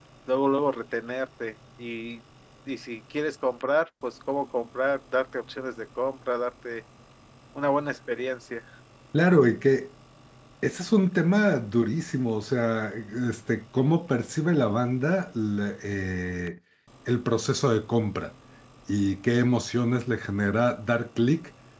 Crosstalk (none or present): none